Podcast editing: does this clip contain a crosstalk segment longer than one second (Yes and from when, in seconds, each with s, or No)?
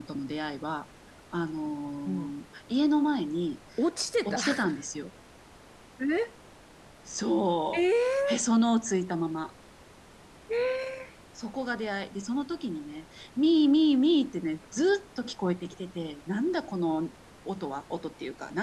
No